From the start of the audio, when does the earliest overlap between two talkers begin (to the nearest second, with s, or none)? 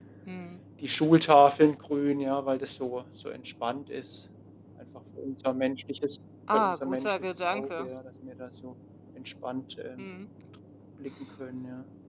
6 s